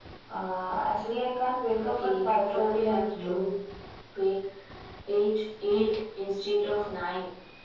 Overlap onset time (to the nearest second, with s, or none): 2 s